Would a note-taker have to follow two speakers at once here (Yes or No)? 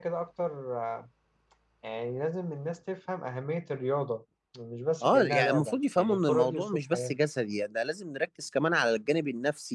Yes